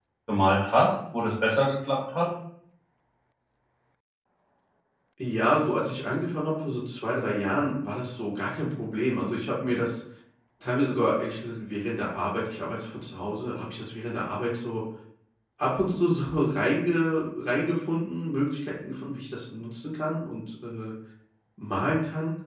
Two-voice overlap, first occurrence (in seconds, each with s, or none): none